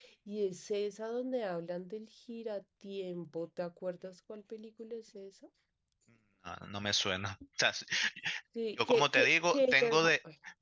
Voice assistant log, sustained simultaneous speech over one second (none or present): present